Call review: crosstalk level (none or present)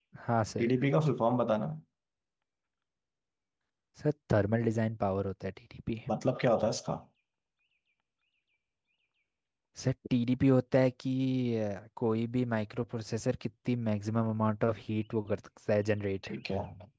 none